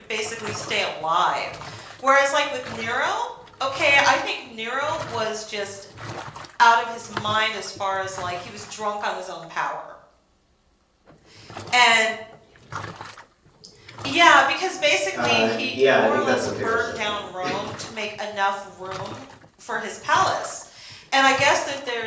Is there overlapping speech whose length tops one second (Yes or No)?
Yes